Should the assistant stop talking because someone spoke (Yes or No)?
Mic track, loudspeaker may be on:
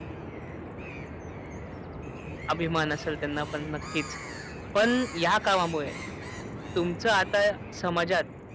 Yes